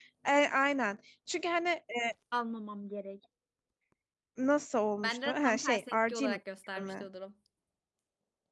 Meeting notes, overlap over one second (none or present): present